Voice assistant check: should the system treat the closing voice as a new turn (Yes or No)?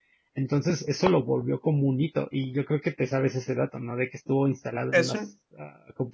No